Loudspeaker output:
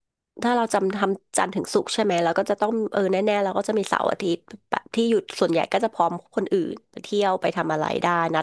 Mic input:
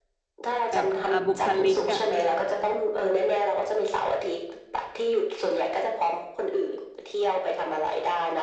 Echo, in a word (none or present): present